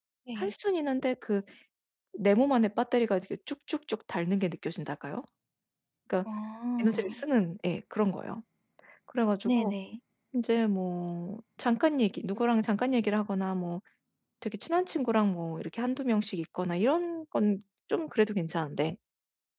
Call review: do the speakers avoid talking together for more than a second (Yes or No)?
Yes